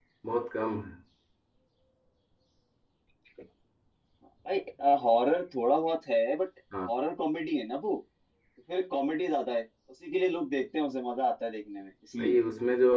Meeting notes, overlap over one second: none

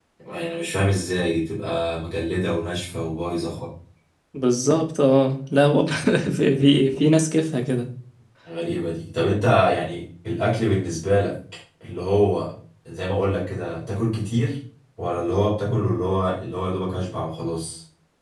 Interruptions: none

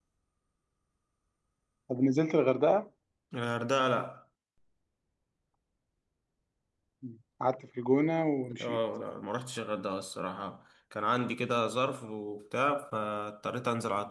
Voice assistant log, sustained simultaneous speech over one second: none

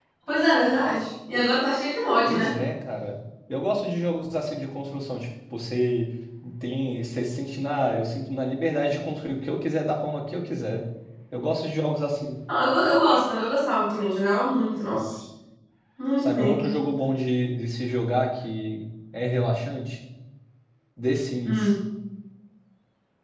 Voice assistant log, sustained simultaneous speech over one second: none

